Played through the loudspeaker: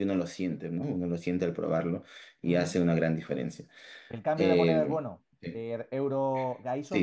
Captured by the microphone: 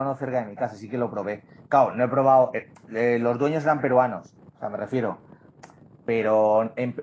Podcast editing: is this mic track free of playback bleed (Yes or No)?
Yes